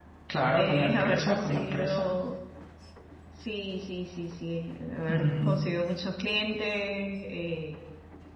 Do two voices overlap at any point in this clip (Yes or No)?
Yes